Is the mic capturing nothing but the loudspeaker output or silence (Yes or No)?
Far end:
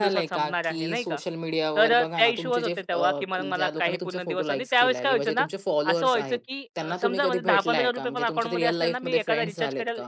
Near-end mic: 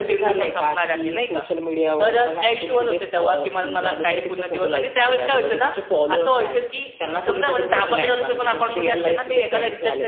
Yes